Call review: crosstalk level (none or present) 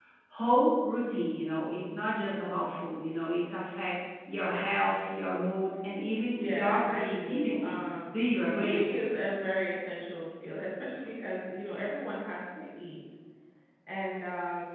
present